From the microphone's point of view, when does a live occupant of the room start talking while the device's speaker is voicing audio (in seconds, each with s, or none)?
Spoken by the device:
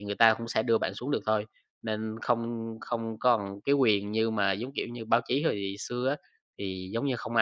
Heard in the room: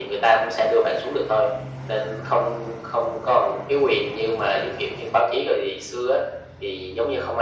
none